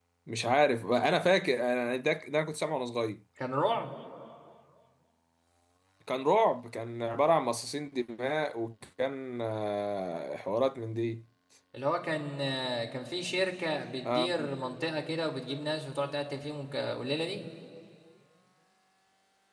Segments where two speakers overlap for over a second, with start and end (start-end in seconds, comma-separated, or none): none